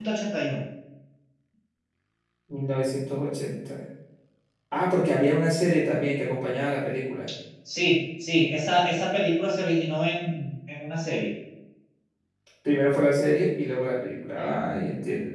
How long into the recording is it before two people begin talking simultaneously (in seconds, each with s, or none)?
none